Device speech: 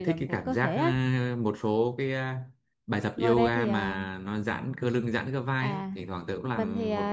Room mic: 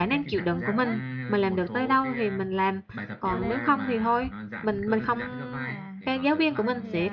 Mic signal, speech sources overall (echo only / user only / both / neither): both